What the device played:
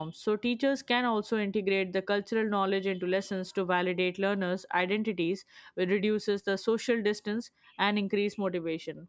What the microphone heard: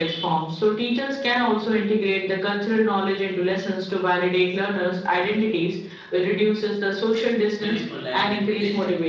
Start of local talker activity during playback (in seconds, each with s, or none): 7.6 s